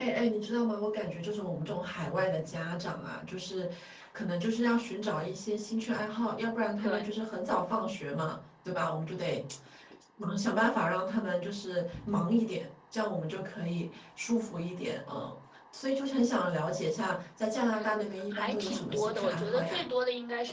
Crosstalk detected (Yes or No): Yes